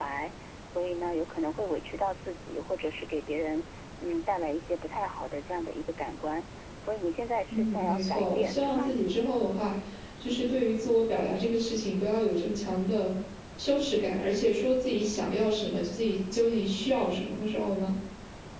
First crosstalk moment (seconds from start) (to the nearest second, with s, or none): 8 s